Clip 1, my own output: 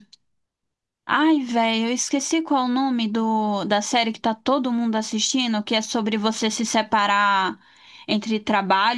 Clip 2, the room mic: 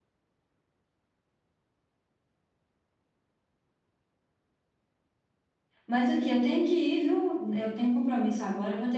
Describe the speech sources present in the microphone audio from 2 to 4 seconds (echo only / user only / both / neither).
neither